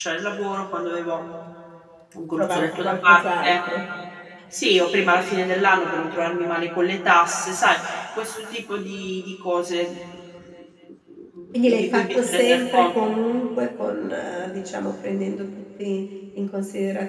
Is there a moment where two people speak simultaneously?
Yes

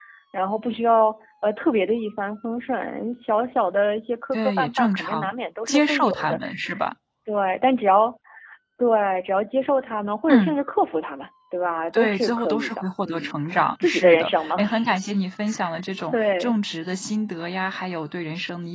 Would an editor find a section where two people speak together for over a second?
Yes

